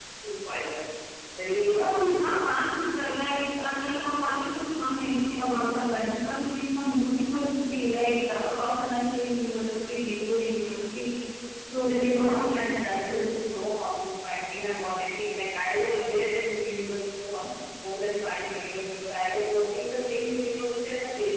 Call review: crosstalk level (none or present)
present